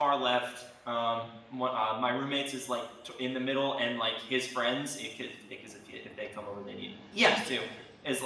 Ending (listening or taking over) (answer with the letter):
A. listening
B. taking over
A